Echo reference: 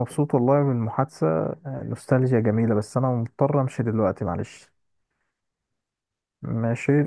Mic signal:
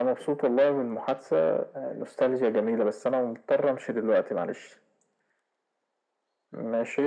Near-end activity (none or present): none